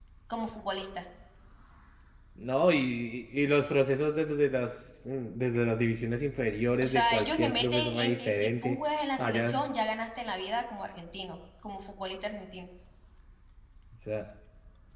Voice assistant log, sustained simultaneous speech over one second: present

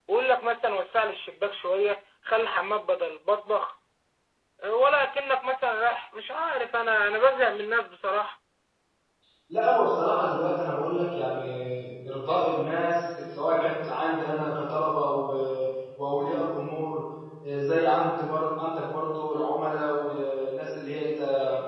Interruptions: none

